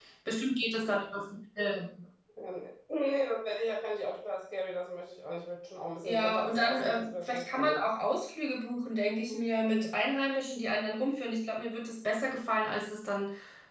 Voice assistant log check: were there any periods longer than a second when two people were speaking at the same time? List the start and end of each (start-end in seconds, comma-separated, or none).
6.0-7.8